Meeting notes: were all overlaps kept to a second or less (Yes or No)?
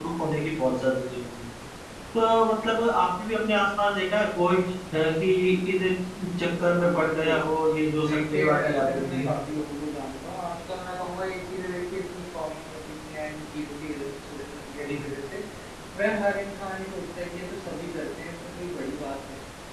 No